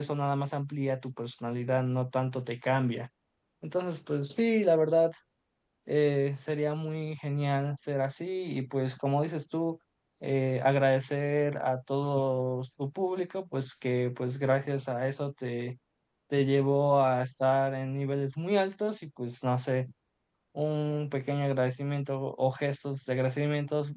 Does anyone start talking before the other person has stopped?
No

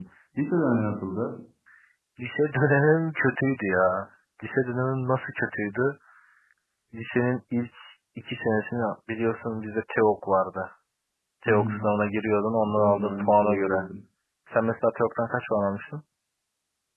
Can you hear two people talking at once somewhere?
Yes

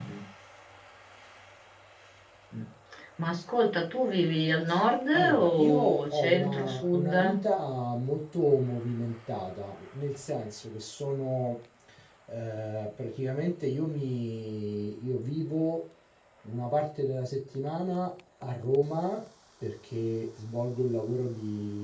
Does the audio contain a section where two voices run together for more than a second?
Yes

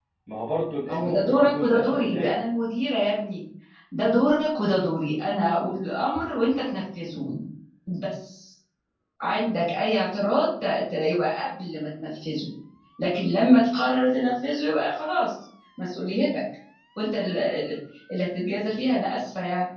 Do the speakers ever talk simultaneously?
Yes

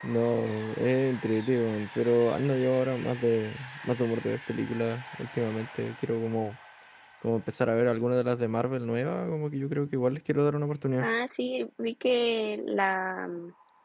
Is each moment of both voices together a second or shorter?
Yes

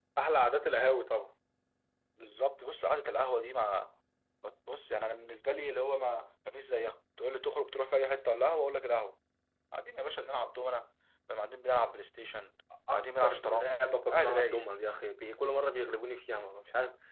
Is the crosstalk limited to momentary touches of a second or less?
No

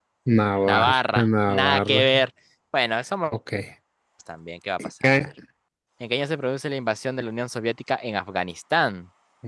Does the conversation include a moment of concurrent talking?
Yes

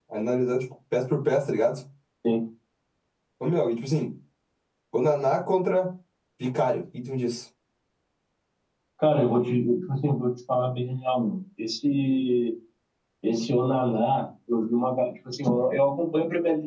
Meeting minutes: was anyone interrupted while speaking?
No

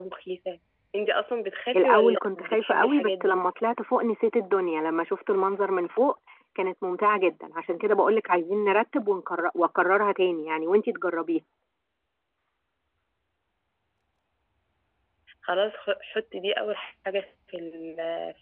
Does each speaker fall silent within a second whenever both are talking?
No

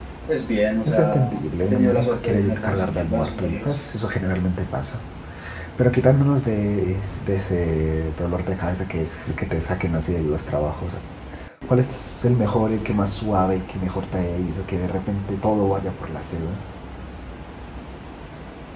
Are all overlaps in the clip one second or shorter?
No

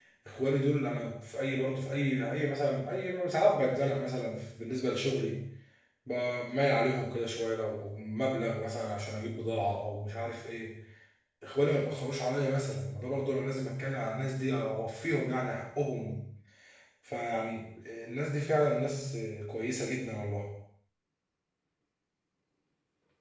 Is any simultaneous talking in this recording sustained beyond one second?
No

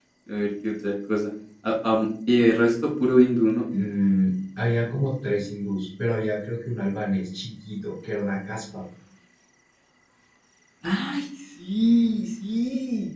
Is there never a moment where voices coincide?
Yes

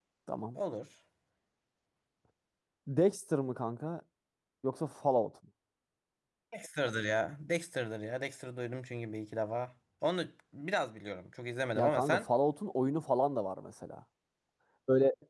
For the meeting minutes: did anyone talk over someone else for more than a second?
No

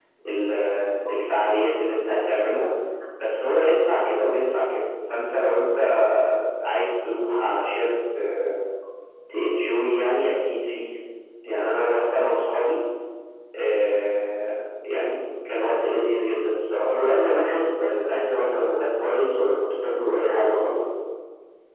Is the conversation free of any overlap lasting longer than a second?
Yes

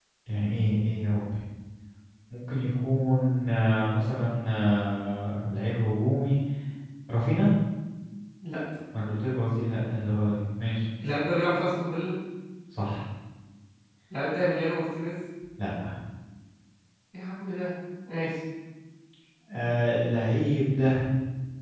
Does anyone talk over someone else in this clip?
No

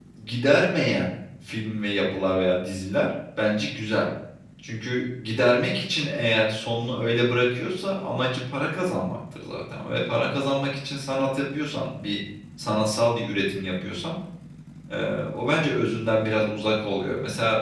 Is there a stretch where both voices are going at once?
No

